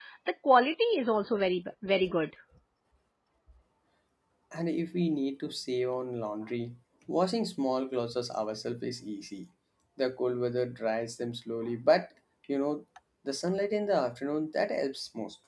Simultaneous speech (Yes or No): No